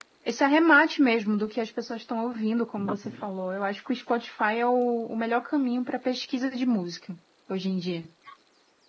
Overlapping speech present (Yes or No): No